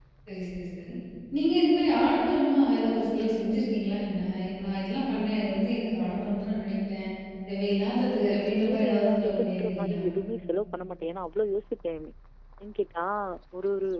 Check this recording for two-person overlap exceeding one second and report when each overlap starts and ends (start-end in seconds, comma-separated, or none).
8.2-10.0